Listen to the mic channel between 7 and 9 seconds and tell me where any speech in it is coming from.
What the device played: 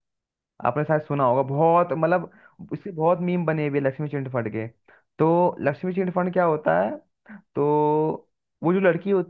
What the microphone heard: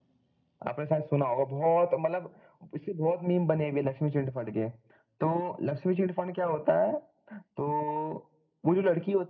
echo only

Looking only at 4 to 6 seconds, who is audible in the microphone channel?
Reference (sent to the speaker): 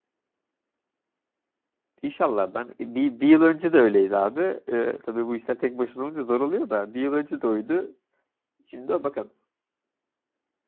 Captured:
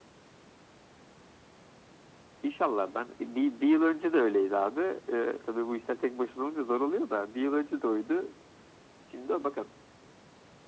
echo only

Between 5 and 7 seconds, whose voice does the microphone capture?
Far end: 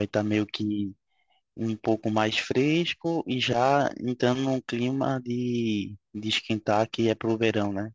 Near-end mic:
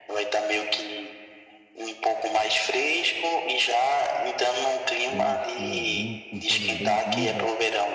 both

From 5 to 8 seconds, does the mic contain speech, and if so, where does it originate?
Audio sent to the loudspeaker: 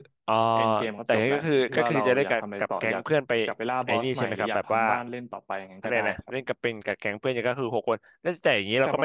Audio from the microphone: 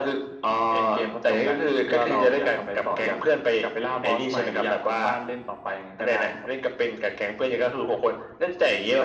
echo only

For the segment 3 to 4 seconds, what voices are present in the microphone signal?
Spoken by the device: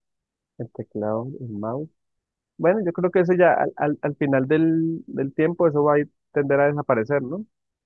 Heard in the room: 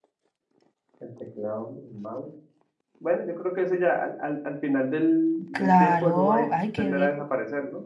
echo only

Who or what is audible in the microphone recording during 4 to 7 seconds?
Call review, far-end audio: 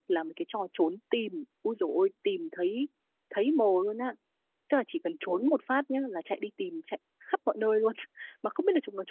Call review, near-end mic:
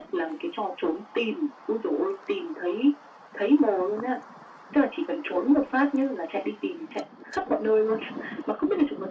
echo only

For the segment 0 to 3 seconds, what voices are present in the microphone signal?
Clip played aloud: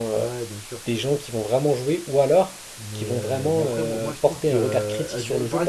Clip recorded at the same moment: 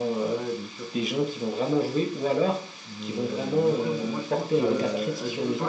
echo only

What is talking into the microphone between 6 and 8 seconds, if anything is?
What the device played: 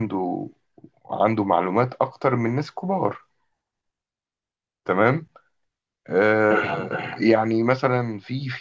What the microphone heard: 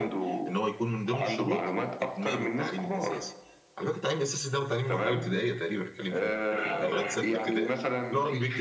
both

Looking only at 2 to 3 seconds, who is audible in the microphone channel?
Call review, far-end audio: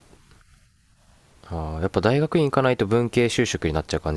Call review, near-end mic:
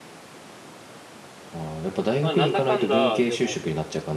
both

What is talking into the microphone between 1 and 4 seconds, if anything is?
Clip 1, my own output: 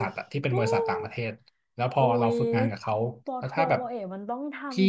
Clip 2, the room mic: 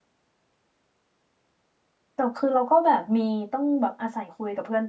user only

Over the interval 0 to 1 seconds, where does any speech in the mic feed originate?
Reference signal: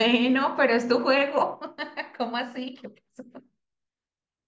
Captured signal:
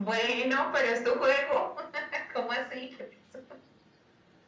echo only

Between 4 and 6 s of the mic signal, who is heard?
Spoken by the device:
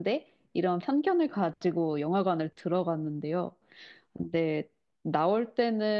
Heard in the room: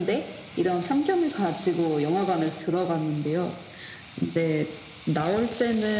echo only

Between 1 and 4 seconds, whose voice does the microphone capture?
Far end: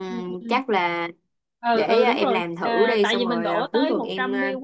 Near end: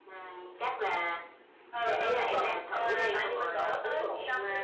echo only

